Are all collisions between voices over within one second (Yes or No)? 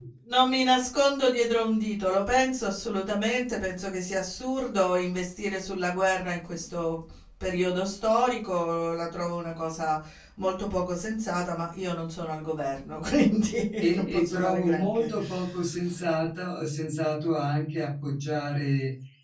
No